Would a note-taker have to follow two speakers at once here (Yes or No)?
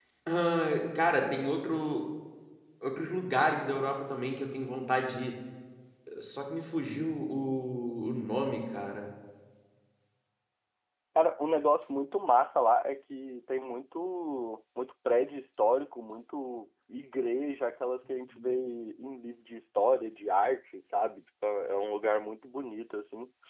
No